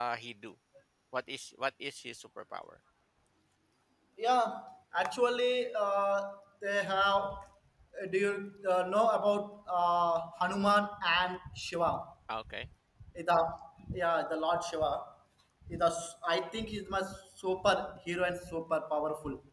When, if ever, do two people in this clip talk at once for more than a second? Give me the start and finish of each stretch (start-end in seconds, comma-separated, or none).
none